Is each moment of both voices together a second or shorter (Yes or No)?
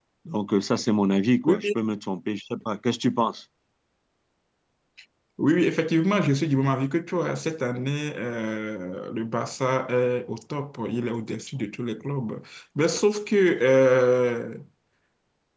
Yes